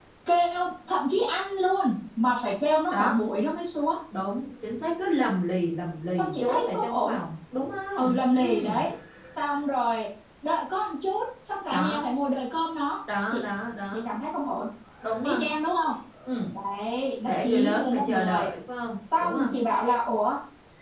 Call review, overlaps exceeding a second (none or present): present